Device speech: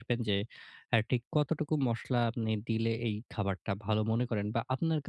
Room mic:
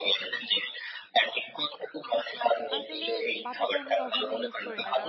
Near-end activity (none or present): present